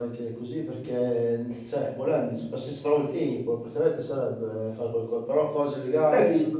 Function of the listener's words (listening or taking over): taking over